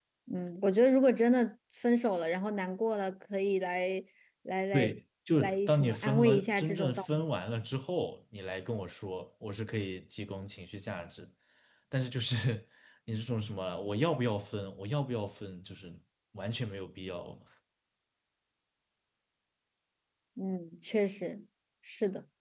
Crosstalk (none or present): present